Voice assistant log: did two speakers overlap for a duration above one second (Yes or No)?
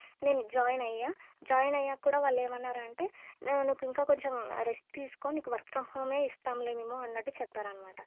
No